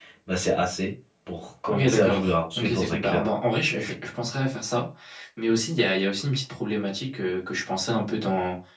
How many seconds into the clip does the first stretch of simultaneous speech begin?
1.7 s

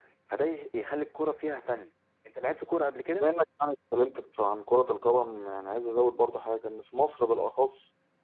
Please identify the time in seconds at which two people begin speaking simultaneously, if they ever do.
none

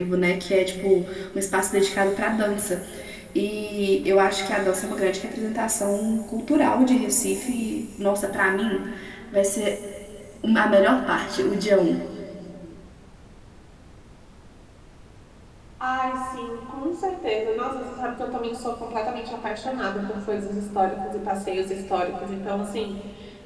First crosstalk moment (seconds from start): none

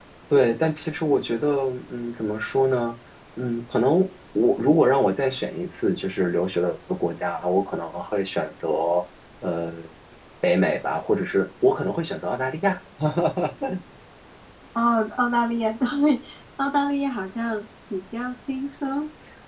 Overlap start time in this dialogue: none

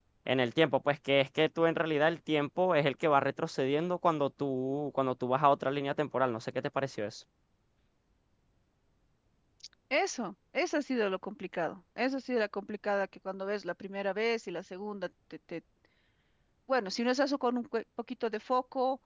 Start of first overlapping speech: none

